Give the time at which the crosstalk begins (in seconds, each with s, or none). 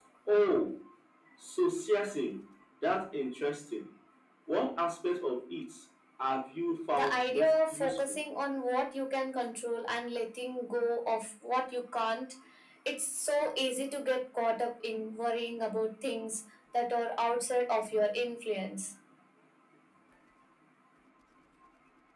6.9 s